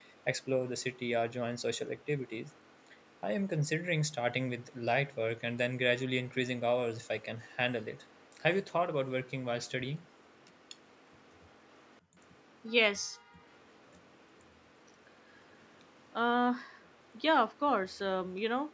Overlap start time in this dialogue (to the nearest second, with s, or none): none